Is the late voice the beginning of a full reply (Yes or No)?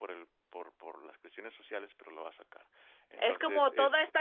Yes